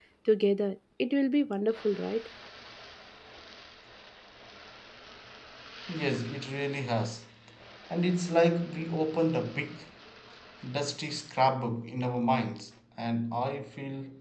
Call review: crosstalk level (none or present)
none